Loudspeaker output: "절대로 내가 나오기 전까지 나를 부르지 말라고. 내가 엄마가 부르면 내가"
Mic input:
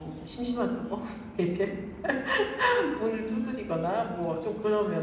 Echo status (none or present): none